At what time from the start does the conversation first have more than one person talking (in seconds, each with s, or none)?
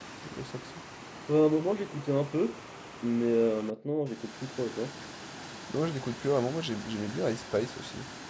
none